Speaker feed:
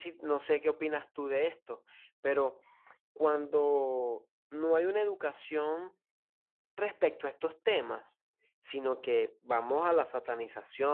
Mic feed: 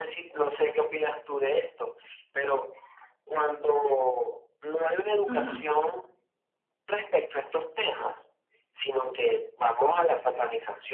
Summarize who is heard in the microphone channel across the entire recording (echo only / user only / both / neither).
both